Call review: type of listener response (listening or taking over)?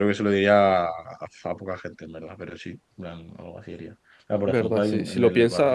taking over